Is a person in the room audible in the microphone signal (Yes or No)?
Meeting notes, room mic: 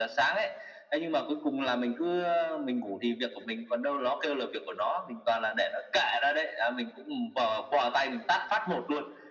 No